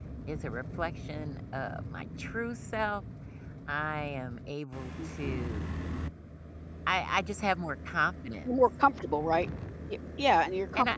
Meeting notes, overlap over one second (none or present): none